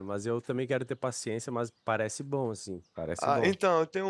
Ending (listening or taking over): taking over